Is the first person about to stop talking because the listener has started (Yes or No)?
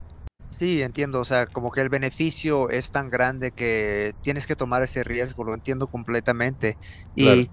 No